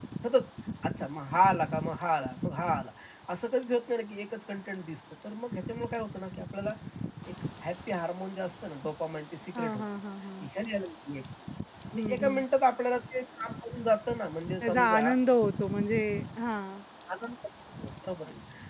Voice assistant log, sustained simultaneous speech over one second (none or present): none